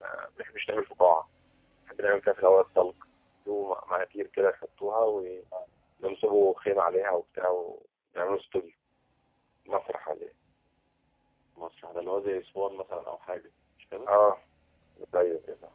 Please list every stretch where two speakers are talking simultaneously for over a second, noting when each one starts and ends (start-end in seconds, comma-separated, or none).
none